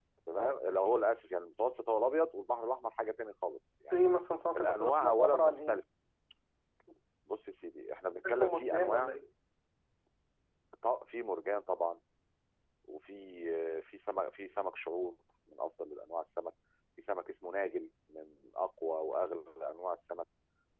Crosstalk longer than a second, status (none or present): present